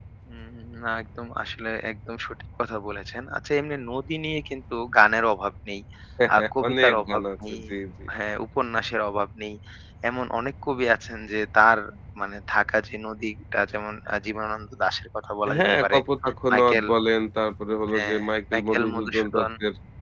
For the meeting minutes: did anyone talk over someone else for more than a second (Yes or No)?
Yes